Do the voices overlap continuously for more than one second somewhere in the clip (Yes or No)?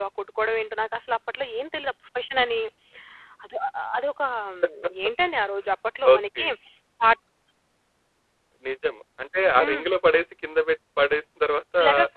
No